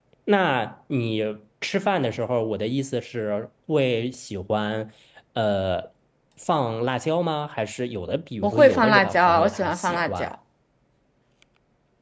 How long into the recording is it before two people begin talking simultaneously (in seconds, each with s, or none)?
8.4 s